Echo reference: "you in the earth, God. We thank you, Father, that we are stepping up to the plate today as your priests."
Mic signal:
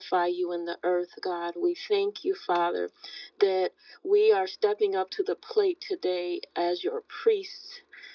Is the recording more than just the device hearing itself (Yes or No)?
No